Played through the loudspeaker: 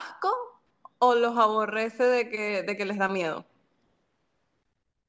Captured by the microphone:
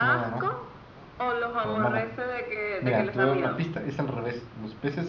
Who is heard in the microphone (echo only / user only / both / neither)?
both